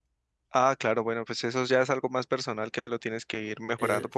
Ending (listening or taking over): taking over